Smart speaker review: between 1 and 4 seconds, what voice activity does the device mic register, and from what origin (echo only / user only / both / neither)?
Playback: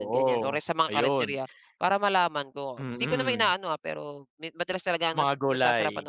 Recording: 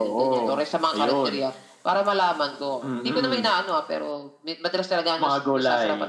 echo only